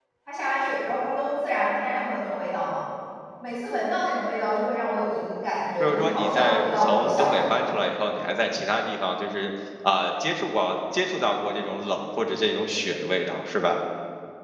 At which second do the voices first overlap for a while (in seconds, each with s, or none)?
5.8 s